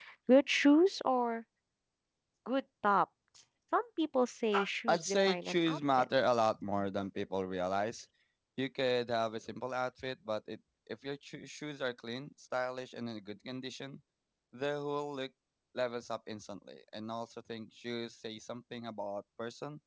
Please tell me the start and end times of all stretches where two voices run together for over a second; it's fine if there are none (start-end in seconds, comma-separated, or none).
4.9-6.1